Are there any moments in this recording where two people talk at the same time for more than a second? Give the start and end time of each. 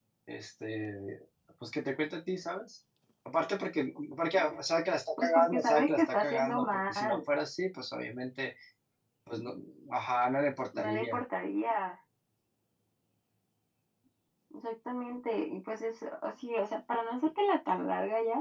5.2-7.2

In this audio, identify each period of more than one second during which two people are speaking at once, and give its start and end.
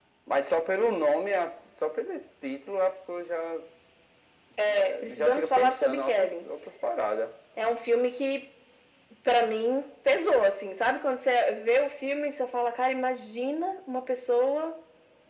4.6-6.5

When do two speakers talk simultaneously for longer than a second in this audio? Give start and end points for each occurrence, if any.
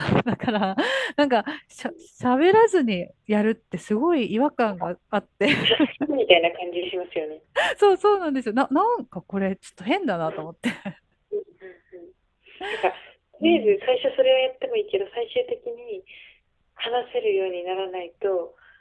none

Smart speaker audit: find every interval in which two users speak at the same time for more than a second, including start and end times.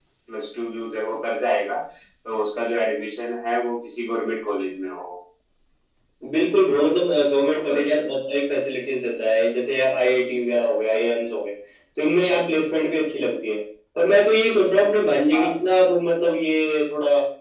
none

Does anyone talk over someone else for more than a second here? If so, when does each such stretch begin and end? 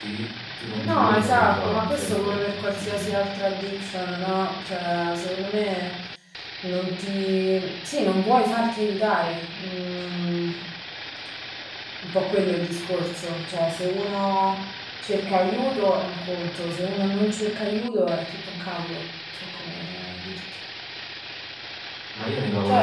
0.8-3.0

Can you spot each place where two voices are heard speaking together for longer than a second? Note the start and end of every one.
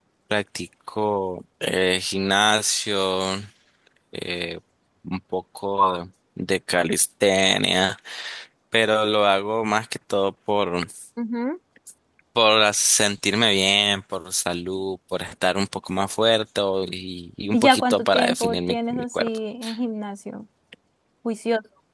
17.5-19.2

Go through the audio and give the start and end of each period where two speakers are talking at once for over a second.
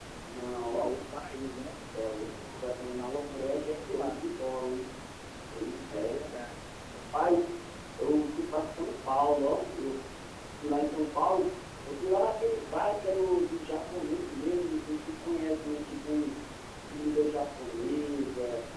3.0-4.2

